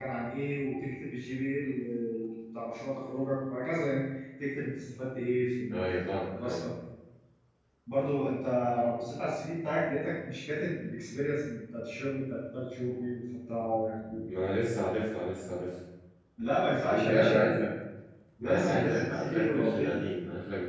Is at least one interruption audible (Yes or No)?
Yes